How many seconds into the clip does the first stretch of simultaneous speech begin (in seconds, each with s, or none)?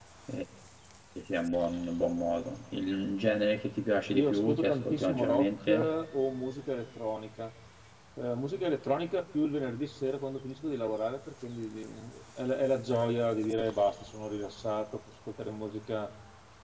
4.1 s